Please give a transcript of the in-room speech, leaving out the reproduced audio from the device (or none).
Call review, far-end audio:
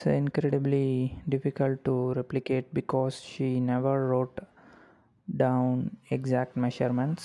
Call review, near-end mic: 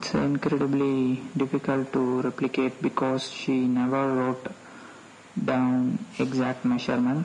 none